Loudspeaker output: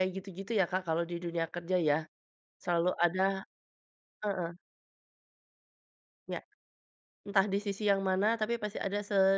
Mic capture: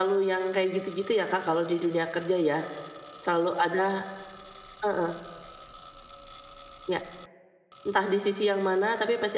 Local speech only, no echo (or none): none